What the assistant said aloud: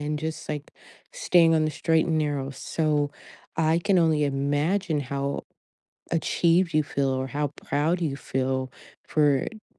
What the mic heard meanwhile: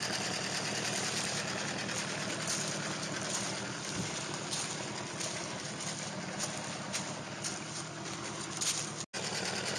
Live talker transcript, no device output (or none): none